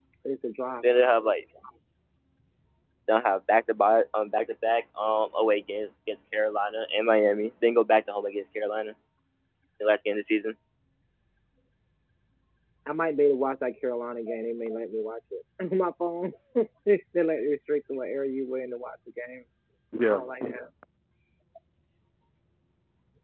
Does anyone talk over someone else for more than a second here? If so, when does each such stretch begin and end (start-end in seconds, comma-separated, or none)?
none